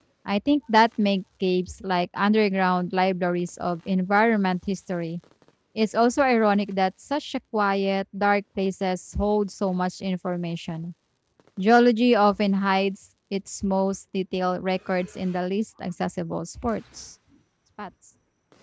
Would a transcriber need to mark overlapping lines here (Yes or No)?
No